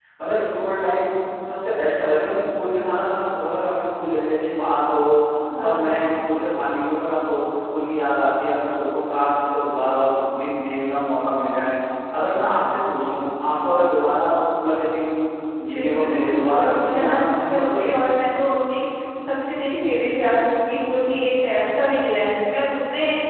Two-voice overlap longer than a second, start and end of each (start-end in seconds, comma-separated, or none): 15.7-17.9